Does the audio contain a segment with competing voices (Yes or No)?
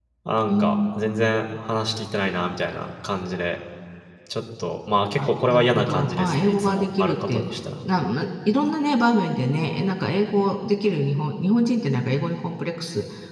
Yes